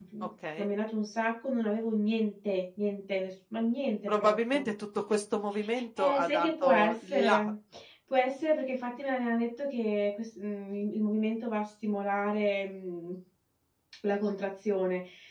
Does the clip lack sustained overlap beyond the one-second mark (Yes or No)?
No